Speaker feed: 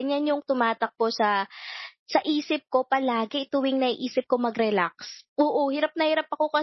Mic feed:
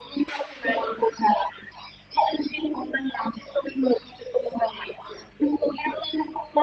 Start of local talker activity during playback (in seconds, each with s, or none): none